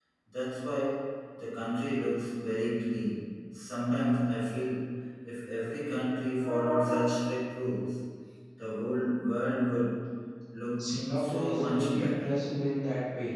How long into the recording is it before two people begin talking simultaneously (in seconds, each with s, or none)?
10.8 s